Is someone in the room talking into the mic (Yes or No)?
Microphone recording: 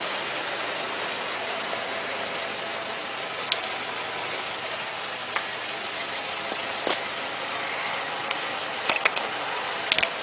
No